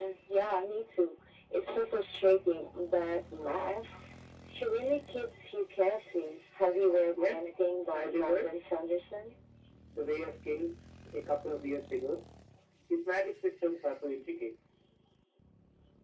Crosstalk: present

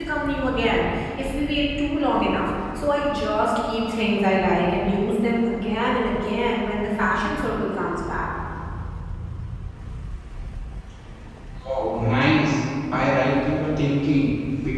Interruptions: none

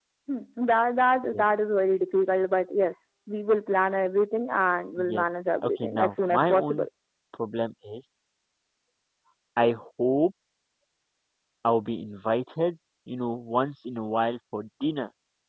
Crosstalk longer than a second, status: present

